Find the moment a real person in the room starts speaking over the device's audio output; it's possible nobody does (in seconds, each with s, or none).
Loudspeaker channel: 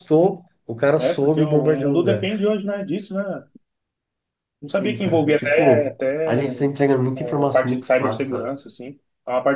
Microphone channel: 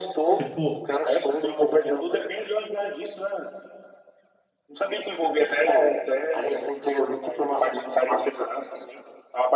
0.3 s